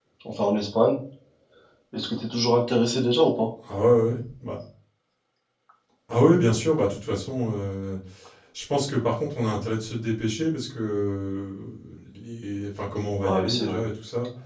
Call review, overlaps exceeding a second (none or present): none